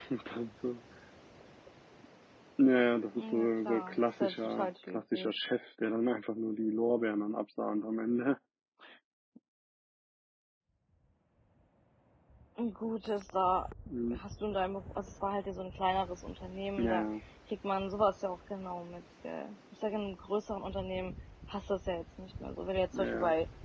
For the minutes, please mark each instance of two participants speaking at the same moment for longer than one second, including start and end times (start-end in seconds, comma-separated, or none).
3.2-5.3